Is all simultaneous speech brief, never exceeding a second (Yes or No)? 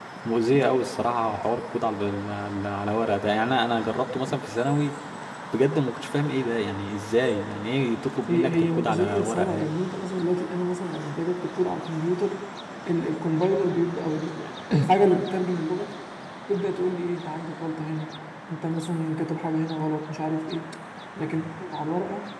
No